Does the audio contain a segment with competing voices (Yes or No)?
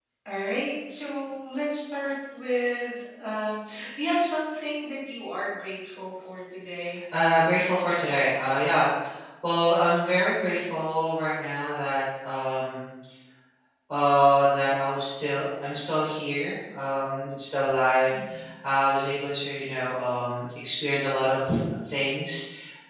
No